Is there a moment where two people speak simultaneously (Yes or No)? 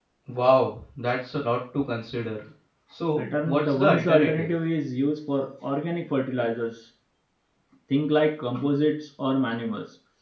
Yes